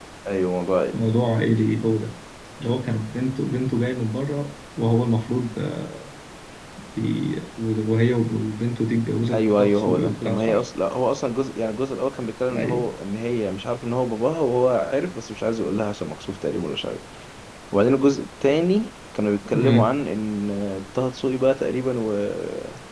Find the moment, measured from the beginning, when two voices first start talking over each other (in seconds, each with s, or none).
9.3 s